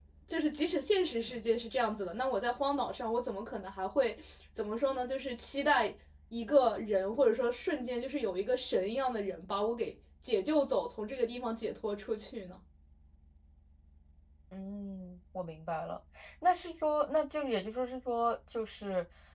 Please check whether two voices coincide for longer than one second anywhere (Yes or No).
No